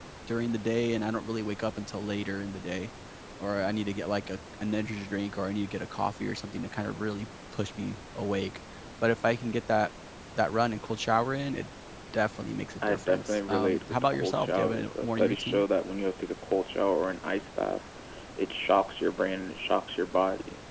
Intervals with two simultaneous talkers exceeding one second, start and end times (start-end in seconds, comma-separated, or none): 12.8-15.6